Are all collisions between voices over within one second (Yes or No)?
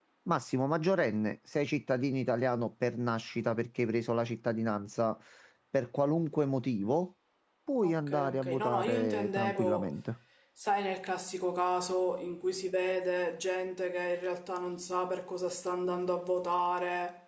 No